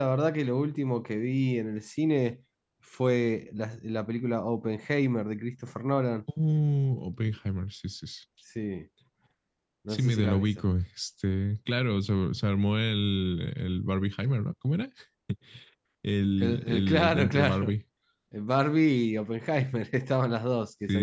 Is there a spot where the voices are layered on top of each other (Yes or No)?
Yes